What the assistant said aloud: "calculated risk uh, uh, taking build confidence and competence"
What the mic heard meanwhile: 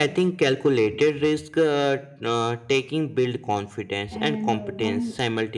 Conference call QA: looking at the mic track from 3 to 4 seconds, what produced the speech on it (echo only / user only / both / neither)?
echo only